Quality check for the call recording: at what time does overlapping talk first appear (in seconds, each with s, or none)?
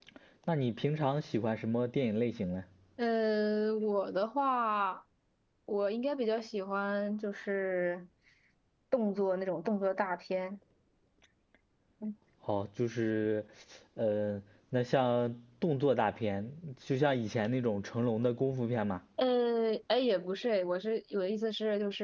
none